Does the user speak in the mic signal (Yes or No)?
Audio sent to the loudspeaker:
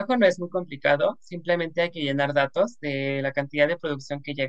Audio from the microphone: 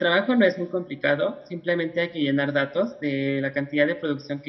No